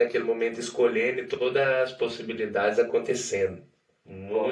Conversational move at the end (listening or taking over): taking over